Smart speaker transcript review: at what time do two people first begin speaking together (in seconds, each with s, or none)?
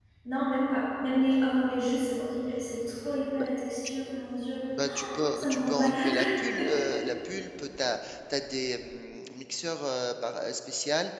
4.8 s